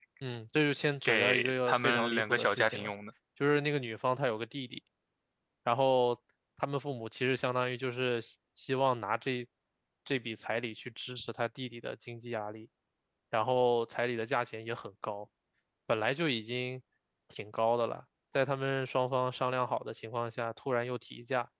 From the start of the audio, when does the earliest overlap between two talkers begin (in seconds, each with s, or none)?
1.0 s